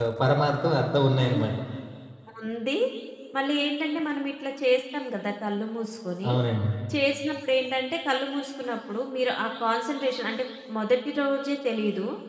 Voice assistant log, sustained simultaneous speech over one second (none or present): none